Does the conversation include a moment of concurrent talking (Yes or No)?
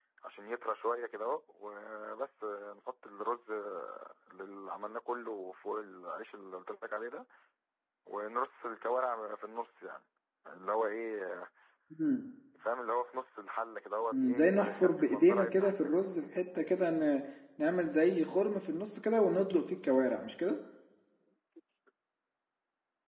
Yes